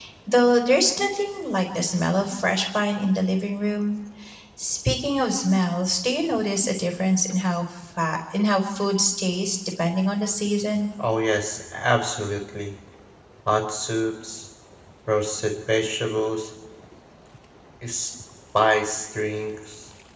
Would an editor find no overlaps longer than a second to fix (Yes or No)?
Yes